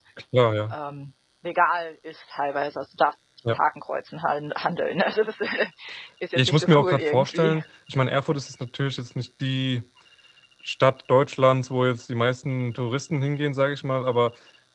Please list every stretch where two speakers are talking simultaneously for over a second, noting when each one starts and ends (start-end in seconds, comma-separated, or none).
6.4-7.6